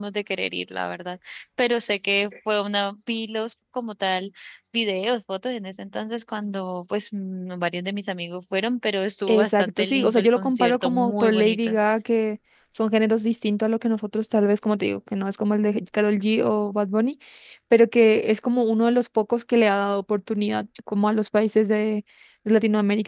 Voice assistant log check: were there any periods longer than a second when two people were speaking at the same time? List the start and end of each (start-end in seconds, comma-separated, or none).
9.3-11.7